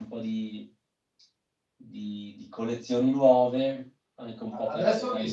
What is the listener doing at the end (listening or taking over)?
taking over